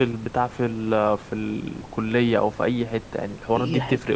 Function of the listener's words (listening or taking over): taking over